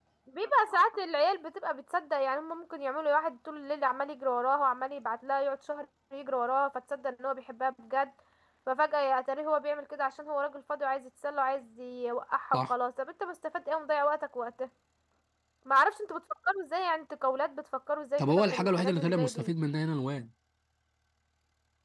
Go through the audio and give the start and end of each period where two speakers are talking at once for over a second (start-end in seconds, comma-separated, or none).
18.2-19.5